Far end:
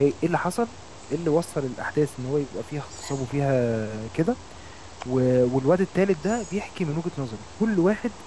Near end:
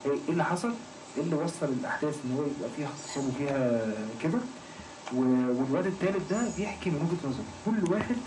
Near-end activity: none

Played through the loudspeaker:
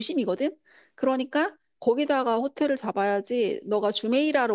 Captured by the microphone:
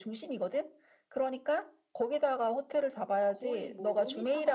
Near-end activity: present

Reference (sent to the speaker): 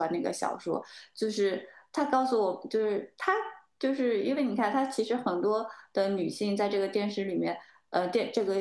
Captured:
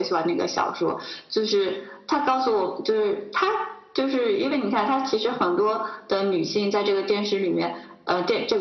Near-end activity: none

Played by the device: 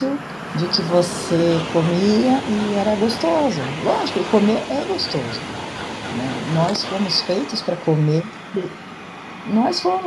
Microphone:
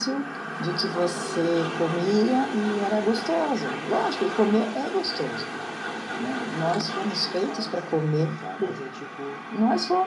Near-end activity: present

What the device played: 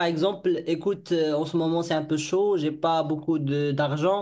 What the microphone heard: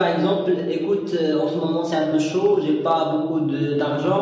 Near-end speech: none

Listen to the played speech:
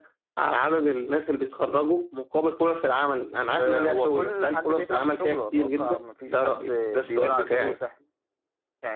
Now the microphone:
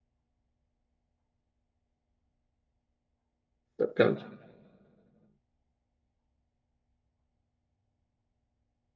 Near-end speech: present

